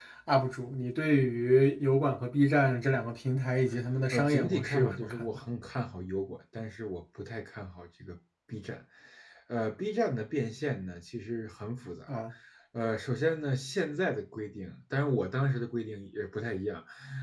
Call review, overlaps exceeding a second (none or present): present